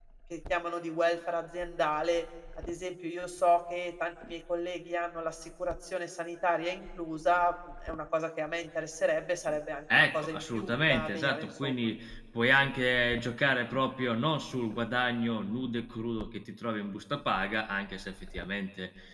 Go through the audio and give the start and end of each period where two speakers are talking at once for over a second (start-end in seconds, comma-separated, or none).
9.9-11.7